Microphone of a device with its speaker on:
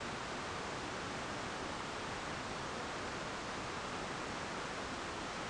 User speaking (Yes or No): No